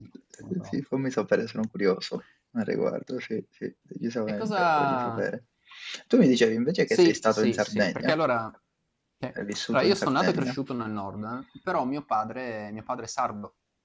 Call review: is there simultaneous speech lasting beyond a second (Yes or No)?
Yes